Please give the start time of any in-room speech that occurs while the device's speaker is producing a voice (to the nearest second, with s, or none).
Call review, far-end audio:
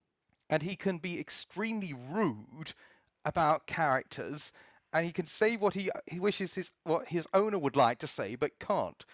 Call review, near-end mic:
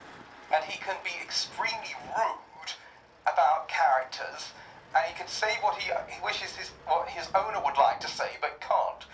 none